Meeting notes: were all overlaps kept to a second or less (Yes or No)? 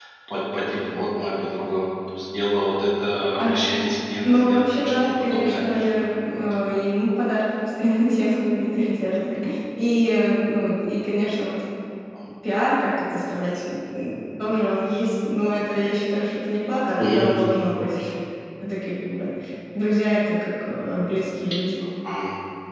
No